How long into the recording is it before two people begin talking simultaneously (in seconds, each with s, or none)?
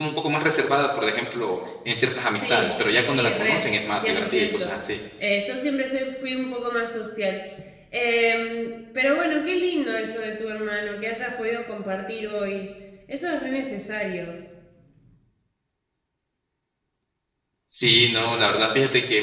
2.3 s